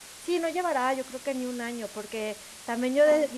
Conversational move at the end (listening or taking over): listening